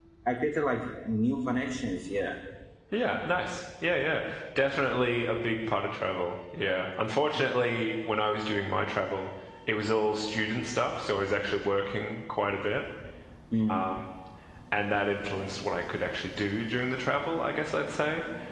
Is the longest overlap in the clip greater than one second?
No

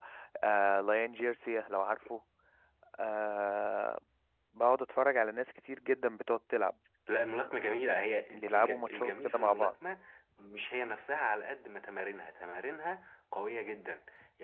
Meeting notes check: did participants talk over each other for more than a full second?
Yes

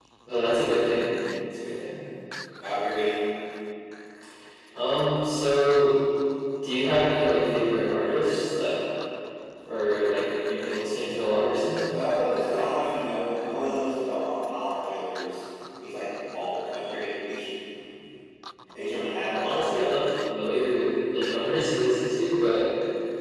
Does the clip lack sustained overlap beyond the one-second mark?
Yes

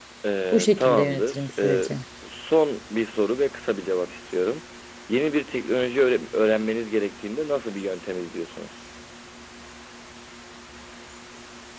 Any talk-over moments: Yes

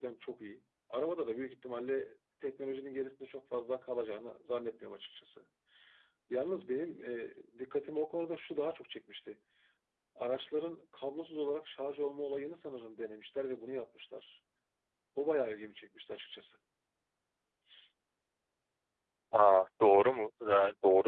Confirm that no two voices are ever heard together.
Yes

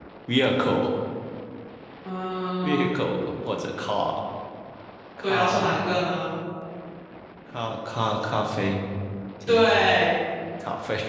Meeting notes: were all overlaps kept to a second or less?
Yes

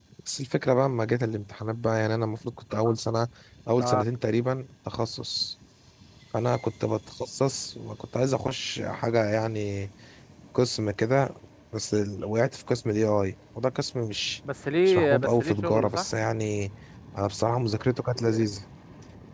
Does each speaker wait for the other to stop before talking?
No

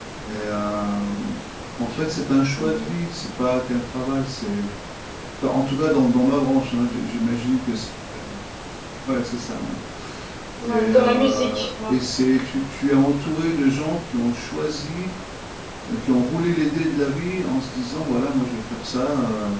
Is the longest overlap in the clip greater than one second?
Yes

